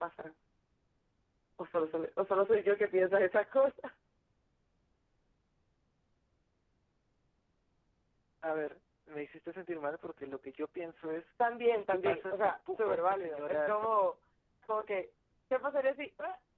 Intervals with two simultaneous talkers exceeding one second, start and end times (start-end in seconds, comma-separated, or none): 11.9-14.1